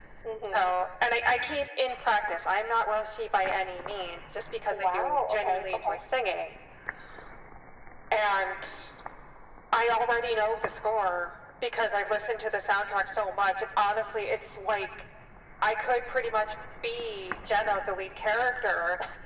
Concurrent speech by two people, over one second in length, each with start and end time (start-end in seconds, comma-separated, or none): 4.7-6.0